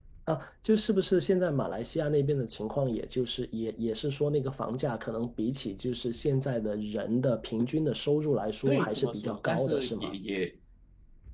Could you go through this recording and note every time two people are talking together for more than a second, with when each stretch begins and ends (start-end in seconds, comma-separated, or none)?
8.7-10.1